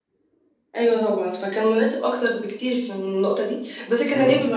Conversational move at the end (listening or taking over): listening